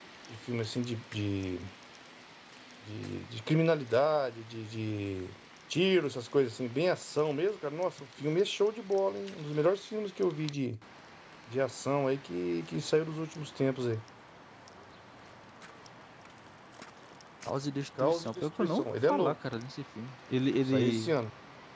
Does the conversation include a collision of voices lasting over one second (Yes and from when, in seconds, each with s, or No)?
Yes, from 18.0 s